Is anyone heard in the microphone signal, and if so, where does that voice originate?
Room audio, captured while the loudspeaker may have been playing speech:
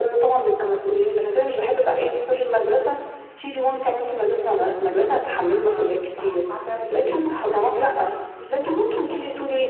both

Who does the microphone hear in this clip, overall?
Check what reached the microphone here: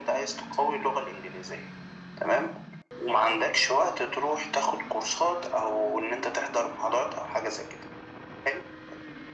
echo only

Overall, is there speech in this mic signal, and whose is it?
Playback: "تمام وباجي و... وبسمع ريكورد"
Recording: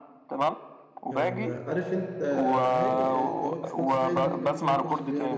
both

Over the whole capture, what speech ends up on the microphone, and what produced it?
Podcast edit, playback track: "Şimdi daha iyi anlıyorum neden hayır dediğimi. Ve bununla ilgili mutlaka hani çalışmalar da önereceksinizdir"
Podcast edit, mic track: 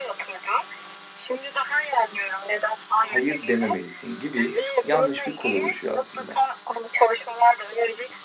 both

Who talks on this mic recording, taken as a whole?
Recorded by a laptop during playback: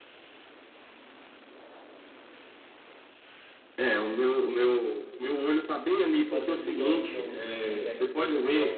both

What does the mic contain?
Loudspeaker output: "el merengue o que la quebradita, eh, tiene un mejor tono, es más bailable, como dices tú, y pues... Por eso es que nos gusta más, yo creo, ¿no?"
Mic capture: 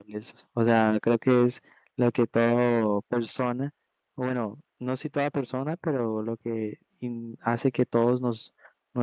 user only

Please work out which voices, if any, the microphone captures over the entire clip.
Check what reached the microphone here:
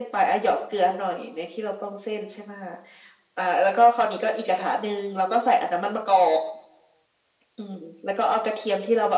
echo only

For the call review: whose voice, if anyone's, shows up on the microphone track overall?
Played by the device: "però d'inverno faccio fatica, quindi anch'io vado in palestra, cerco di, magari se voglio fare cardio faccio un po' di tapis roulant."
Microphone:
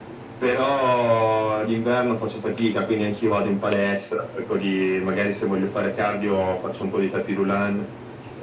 echo only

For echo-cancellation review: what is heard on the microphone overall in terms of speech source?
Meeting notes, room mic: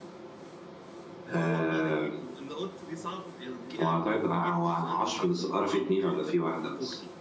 both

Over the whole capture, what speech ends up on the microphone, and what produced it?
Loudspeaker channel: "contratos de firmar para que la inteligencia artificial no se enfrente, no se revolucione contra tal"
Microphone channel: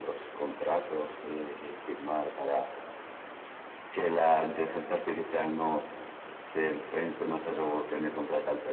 echo only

